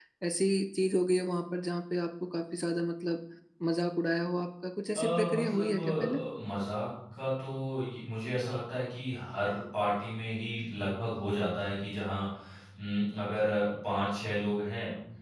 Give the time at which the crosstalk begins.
4.9 s

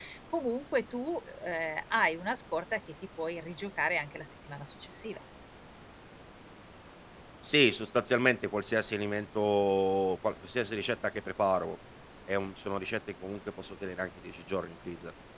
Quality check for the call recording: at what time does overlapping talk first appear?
none

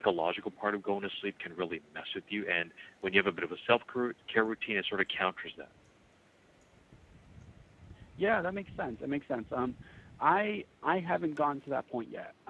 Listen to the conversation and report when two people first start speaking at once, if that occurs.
none

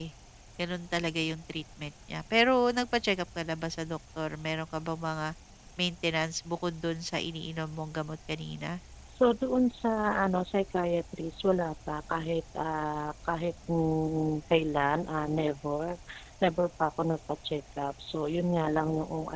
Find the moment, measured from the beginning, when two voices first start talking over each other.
none

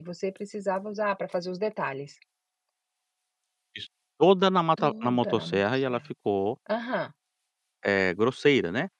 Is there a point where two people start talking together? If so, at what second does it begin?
4.8 s

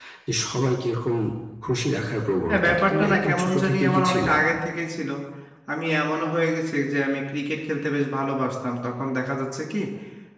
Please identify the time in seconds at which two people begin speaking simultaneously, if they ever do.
2.5 s

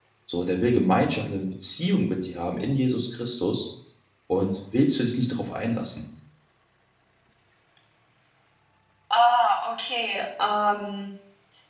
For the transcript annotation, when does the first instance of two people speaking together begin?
none

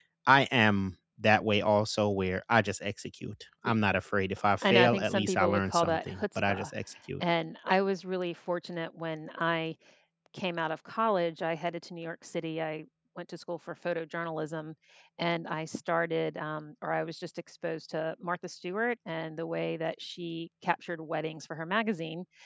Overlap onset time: 4.6 s

